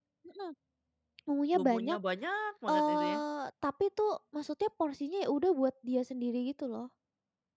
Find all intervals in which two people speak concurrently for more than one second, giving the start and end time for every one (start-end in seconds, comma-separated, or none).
none